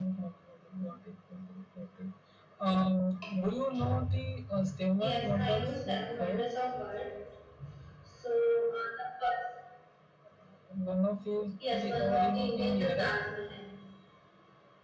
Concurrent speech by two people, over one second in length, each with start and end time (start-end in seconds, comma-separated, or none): 5.0-6.5, 11.7-13.2